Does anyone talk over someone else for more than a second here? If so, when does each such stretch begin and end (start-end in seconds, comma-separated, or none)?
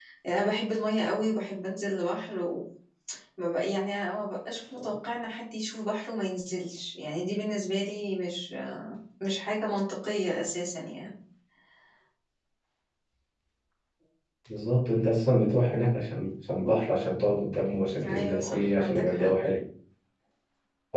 18.0-19.3